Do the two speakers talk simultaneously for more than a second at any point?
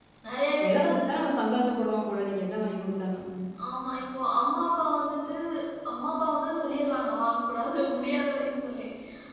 No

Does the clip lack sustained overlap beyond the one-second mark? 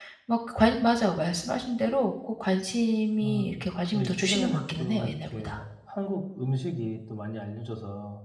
No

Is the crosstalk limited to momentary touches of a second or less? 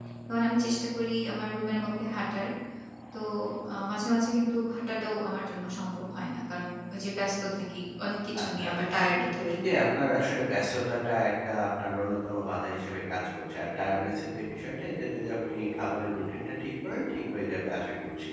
Yes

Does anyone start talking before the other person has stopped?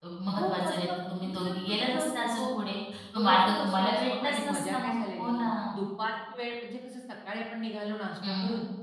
Yes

